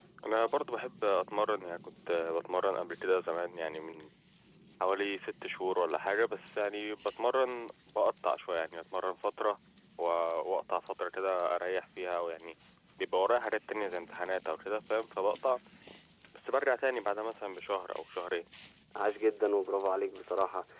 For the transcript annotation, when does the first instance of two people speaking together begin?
none

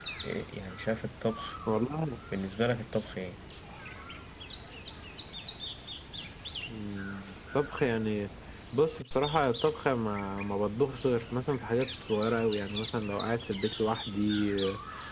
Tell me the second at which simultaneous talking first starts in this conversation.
none

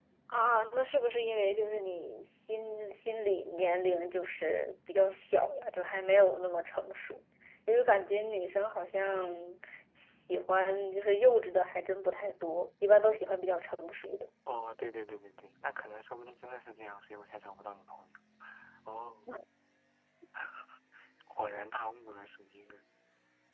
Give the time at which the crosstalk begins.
none

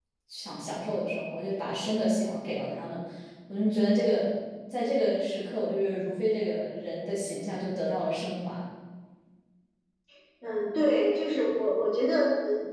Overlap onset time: none

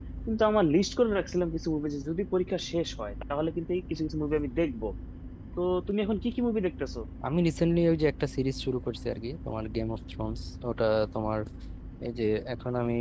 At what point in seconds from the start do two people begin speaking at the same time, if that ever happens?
none

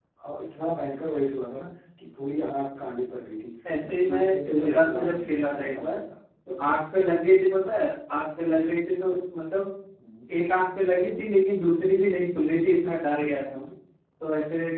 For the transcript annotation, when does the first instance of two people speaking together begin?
3.6 s

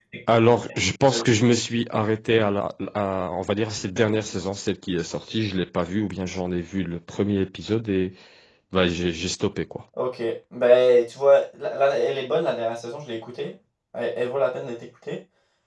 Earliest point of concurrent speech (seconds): none

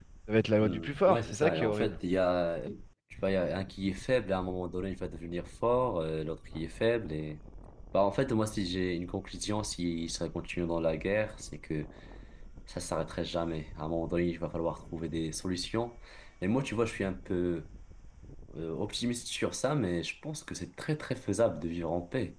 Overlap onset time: 0.6 s

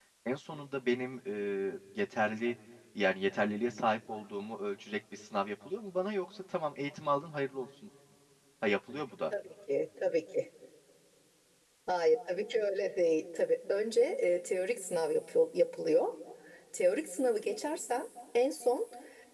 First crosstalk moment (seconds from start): none

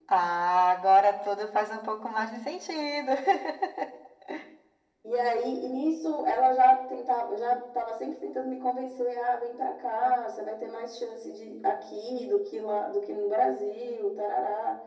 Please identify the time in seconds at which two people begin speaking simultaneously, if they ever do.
none

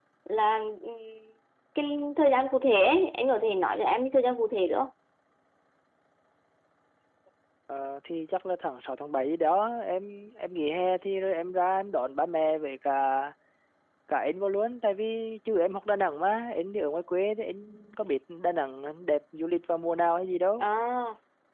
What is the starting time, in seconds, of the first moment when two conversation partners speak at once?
none

